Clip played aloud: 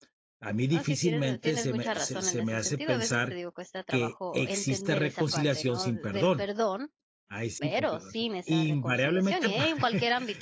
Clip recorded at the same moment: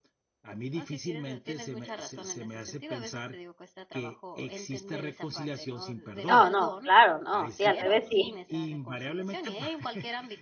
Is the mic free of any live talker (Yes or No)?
No